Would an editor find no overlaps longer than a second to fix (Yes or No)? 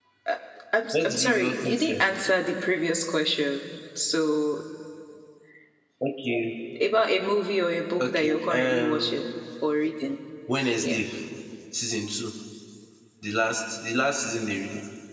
No